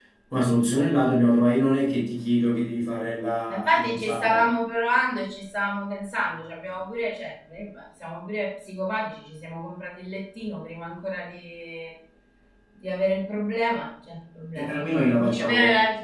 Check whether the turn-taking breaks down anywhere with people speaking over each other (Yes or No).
Yes